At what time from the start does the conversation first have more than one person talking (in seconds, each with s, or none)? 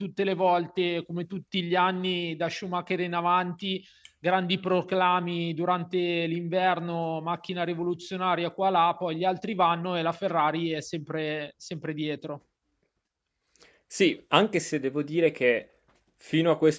none